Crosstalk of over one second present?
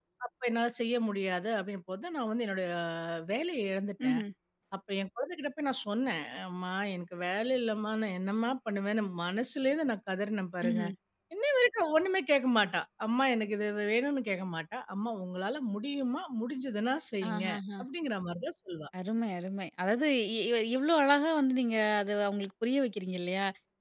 No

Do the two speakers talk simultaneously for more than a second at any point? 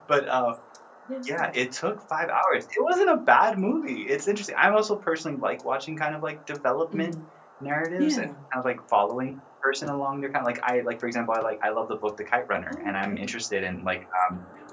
No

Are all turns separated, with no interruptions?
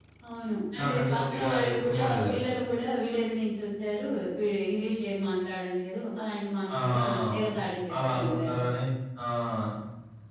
No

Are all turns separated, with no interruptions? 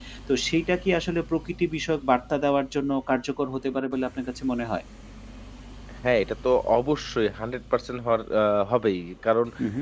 Yes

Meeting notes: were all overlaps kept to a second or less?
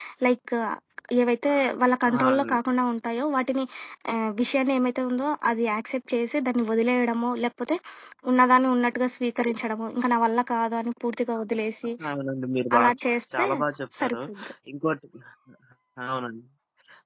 Yes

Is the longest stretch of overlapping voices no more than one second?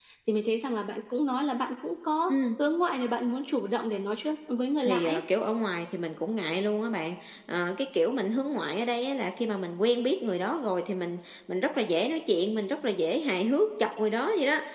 Yes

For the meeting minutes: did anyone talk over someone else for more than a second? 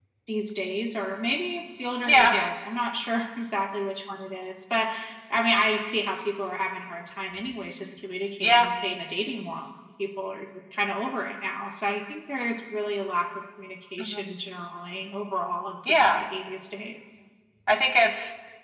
No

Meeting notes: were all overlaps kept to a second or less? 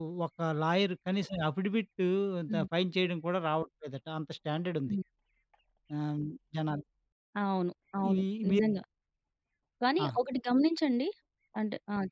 Yes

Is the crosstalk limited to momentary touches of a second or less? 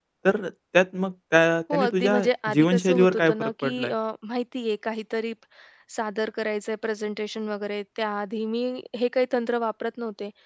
No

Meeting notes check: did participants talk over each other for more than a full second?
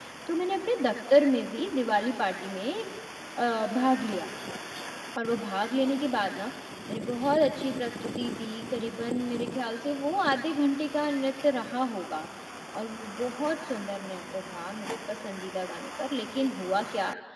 No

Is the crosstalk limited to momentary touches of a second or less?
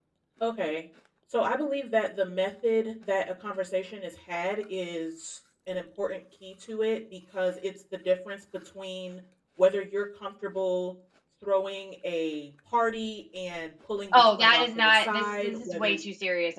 No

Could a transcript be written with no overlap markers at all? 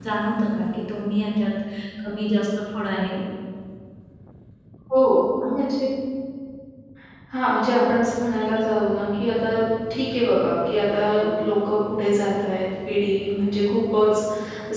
Yes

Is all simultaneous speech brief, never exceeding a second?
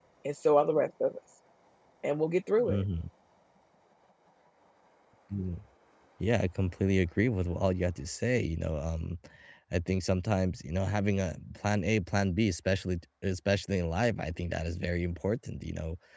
Yes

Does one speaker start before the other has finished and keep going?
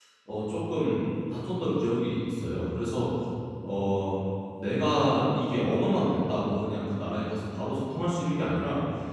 No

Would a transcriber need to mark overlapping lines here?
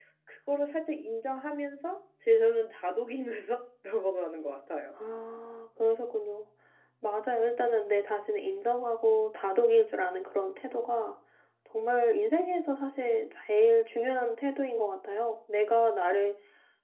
No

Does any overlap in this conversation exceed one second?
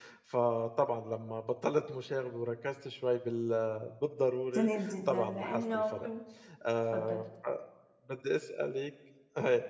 Yes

